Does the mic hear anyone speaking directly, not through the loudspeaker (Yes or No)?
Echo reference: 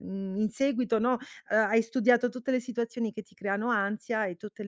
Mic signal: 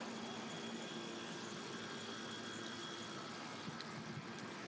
No